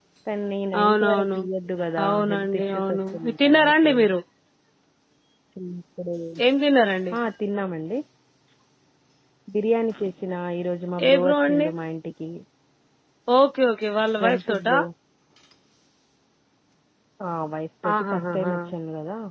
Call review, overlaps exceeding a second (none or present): present